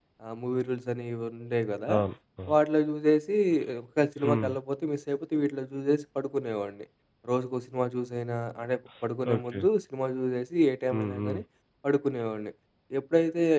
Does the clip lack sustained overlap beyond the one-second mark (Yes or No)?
Yes